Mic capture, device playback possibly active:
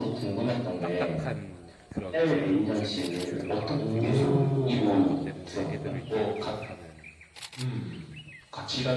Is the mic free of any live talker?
No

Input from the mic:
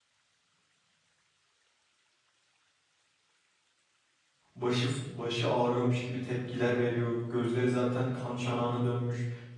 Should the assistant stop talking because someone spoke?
Yes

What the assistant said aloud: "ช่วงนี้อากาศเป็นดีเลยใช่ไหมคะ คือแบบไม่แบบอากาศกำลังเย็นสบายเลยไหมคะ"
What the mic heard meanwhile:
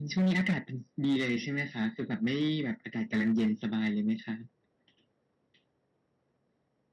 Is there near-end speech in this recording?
No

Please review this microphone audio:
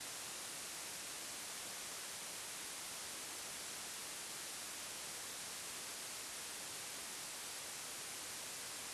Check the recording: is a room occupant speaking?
No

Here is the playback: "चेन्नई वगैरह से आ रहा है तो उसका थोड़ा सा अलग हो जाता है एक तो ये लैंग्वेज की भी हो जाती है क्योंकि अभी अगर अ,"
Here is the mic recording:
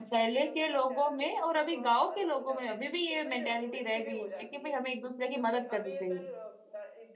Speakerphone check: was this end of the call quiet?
No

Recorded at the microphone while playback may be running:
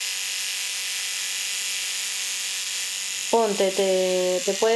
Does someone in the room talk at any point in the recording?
Yes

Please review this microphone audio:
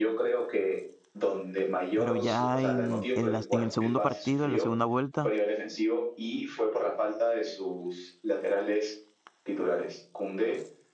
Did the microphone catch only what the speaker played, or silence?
No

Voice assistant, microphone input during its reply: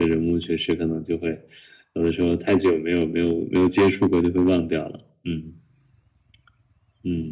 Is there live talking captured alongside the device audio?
No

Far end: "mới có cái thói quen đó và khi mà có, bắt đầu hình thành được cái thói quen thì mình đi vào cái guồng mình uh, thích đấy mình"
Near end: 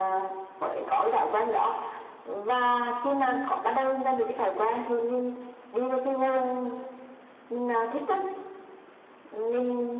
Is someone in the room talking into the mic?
No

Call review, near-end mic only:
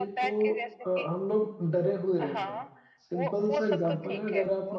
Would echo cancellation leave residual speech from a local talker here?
Yes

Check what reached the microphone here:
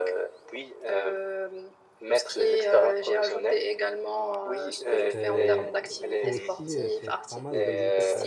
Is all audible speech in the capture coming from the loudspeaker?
No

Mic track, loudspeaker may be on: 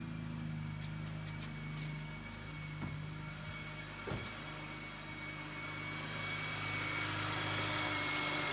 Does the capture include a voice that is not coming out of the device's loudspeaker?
No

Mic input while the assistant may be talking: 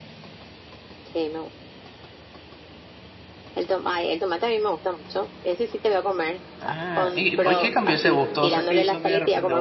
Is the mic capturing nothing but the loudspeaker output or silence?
No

